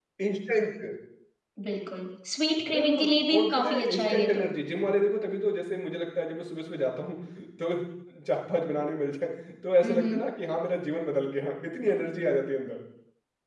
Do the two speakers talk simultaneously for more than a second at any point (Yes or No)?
Yes